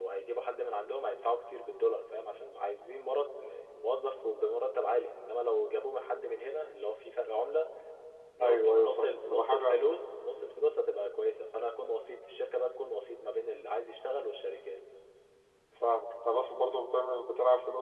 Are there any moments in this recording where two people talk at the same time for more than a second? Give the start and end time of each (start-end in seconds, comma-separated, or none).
8.4-9.8